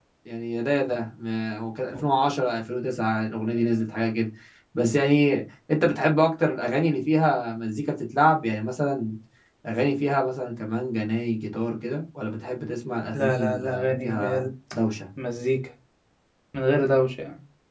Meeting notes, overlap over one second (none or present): present